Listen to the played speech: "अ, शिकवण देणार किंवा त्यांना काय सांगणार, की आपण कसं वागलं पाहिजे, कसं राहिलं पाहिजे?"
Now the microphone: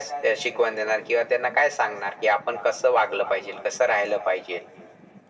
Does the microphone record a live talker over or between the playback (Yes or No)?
No